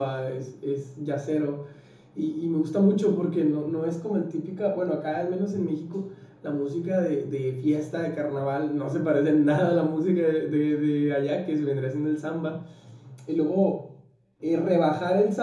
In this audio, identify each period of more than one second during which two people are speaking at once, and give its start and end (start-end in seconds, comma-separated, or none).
none